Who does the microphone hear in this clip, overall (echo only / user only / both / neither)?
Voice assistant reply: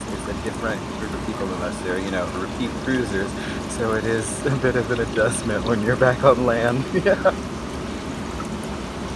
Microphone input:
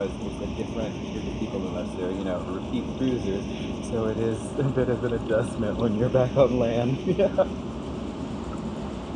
echo only